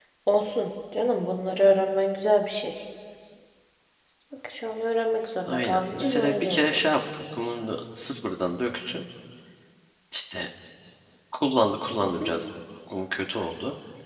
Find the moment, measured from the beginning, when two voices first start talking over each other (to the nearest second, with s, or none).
5 s